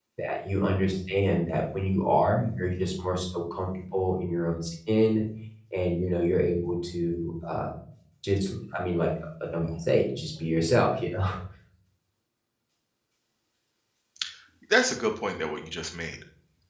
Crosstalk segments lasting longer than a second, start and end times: none

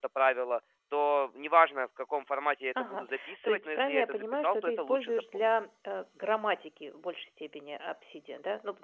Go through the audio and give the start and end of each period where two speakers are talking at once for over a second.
2.8-5.5

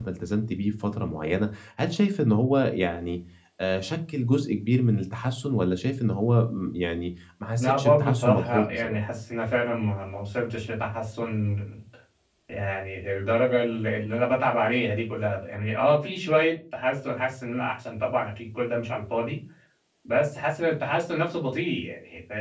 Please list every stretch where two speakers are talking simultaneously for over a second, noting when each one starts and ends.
7.6-9.0

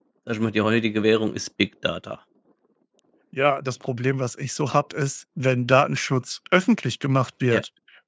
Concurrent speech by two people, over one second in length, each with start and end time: none

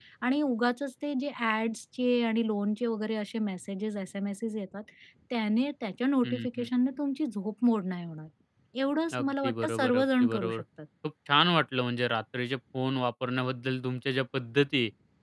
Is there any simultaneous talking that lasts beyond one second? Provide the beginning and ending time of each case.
9.1-10.6

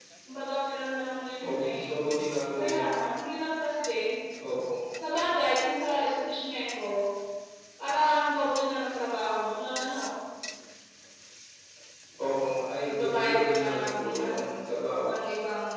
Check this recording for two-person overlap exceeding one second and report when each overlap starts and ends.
12.8-14.5

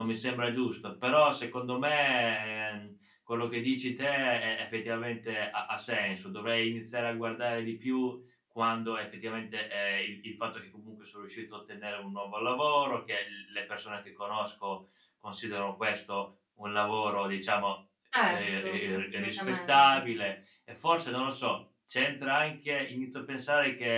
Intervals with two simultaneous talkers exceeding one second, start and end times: 18.3-20.0

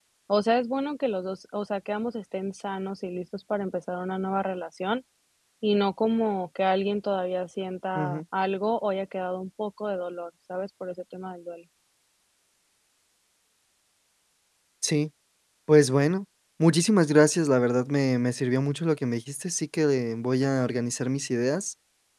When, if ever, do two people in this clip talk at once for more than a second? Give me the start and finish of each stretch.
none

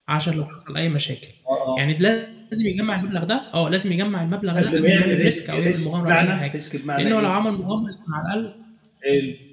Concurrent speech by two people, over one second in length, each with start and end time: 4.6-6.5

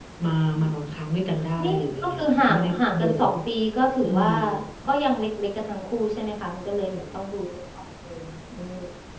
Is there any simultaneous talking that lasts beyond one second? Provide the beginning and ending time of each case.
1.6-3.3

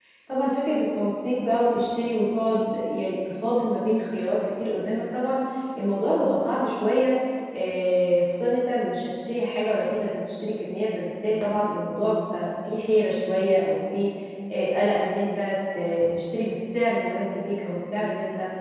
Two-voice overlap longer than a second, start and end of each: none

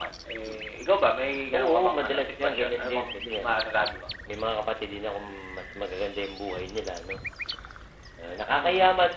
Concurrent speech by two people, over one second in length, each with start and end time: 1.5-3.4

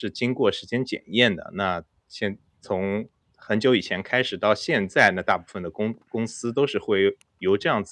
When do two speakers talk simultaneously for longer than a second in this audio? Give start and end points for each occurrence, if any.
none

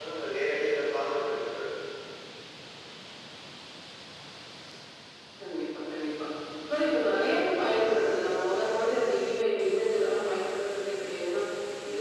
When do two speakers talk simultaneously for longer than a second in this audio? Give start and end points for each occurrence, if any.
none

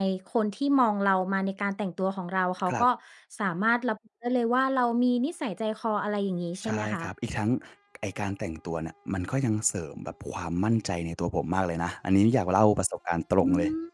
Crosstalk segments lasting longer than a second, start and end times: none

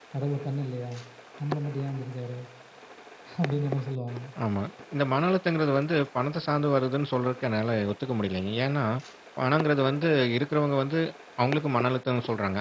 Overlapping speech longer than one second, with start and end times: none

